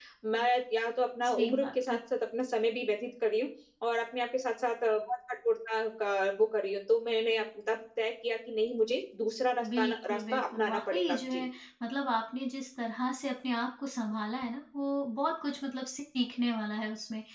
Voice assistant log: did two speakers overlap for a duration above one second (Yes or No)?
Yes